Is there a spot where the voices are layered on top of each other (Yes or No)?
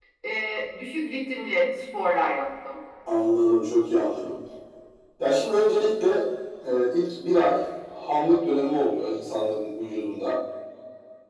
No